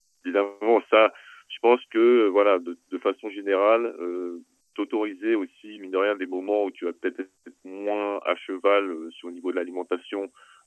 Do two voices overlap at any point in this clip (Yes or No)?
No